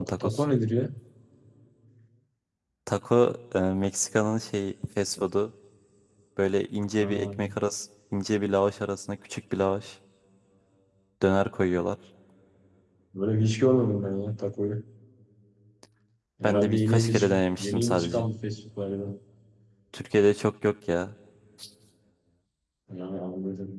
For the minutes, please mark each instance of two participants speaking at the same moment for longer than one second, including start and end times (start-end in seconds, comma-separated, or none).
16.4-18.2